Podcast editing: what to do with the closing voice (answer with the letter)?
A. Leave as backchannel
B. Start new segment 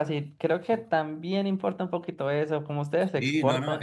B